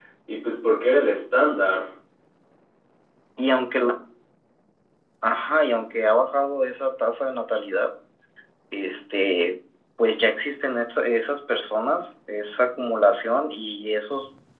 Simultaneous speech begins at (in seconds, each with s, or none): none